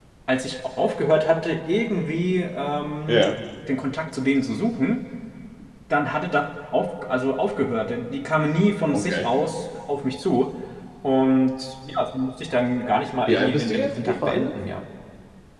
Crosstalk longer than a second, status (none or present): present